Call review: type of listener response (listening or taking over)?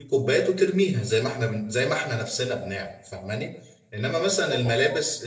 listening